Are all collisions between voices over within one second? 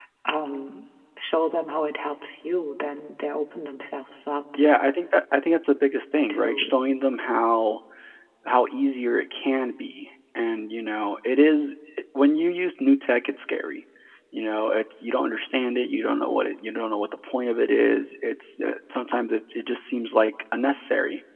Yes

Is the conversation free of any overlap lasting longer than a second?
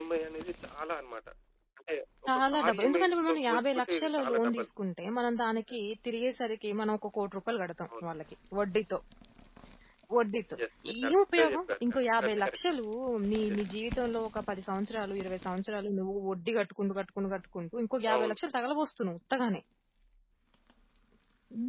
No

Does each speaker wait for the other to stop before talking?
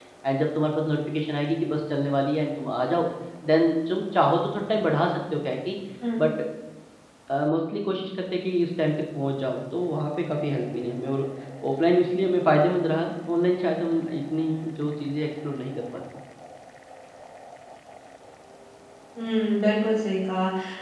Yes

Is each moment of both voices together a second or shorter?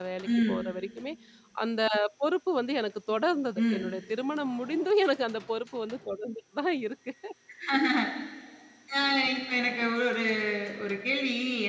Yes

